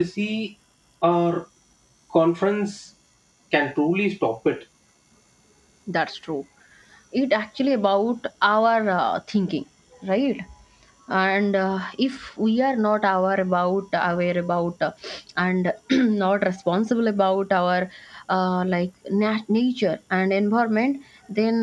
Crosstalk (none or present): none